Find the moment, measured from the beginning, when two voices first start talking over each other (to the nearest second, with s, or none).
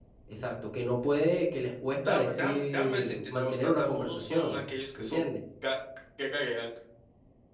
2 s